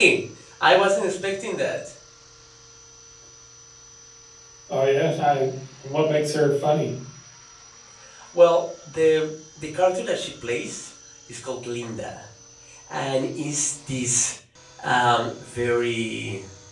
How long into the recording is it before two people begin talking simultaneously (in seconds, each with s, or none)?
none